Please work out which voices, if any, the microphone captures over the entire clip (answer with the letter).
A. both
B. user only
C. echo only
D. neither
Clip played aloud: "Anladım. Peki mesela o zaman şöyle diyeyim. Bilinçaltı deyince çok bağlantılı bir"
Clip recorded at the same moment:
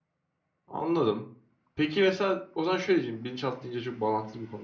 C